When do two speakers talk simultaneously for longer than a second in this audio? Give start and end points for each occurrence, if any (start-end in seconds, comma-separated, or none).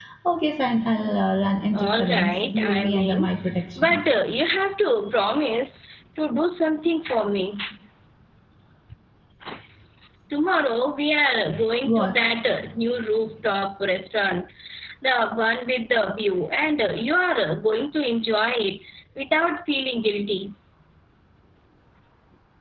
1.7-3.3